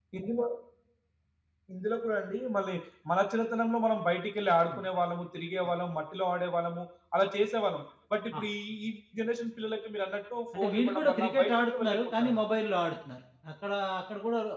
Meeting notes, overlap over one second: present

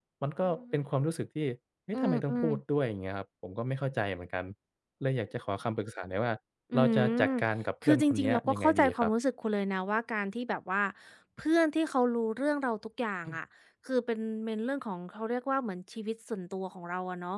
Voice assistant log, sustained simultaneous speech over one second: present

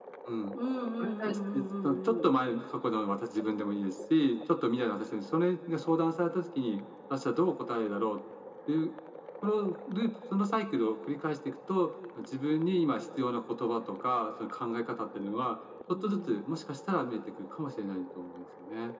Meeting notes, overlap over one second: present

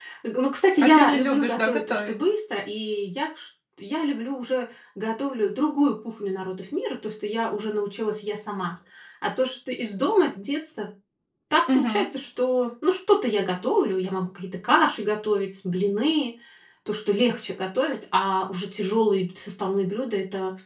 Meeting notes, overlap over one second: present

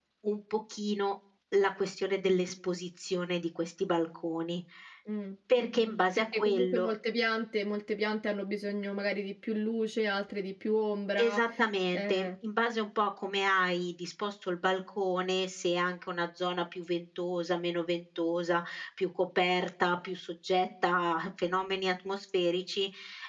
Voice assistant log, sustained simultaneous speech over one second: present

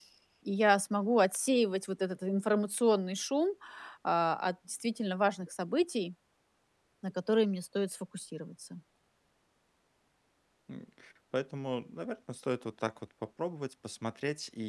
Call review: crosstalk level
none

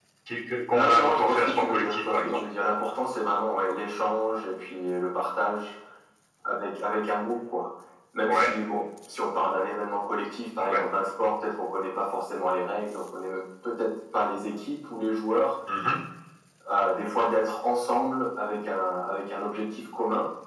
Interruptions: present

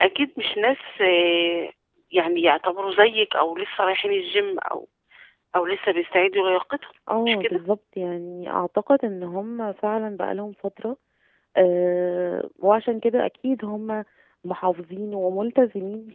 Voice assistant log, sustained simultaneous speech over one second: none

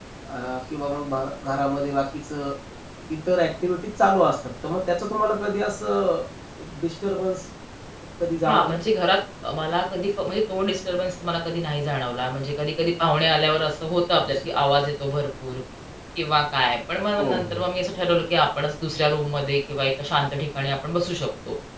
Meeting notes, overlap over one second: none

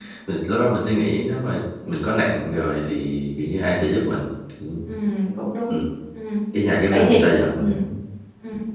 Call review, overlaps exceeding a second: none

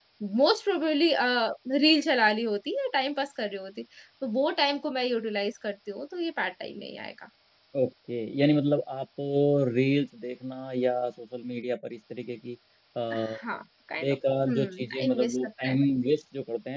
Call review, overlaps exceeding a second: present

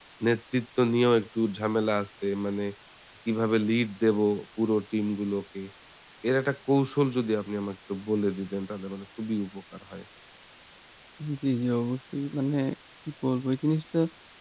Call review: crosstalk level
none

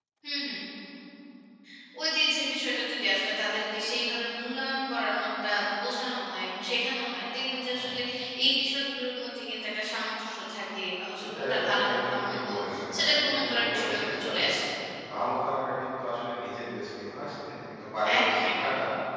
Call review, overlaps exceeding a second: present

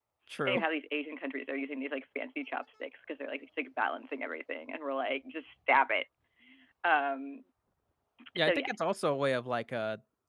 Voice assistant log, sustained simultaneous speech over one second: none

